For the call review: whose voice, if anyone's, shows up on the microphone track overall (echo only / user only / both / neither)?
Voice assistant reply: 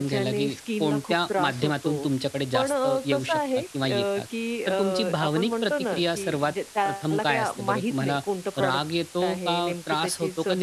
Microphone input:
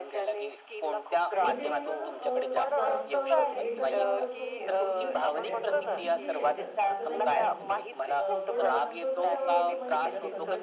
both